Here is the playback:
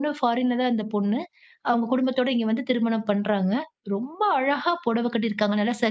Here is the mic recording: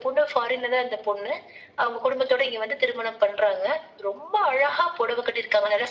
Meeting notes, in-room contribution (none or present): none